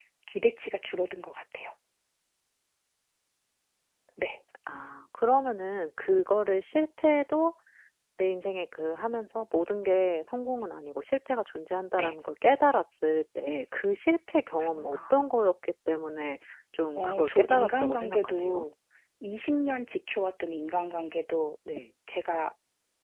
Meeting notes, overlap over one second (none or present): present